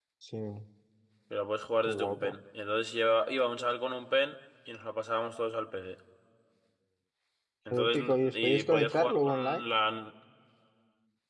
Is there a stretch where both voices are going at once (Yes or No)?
Yes